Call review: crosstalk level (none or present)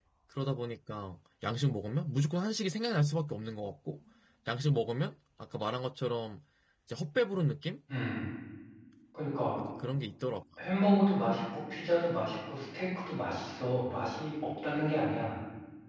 none